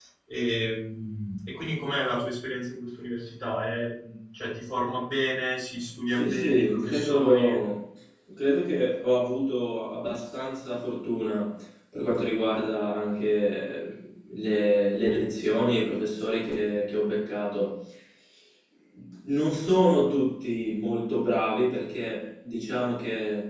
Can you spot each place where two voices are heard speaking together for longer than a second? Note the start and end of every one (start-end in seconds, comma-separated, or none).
6.1-7.6